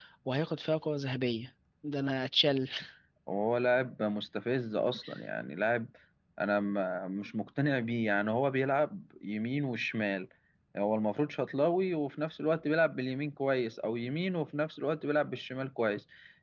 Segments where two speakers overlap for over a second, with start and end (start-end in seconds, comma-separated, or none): none